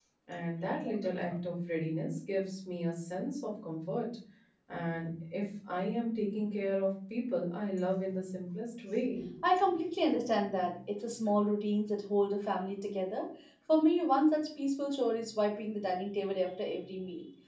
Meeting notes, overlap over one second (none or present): none